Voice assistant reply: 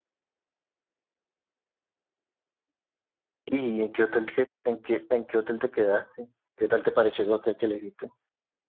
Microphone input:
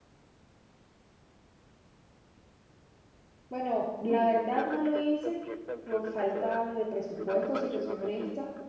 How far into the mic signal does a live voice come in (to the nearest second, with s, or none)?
3 s